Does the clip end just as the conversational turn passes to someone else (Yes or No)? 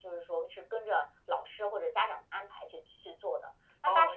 Yes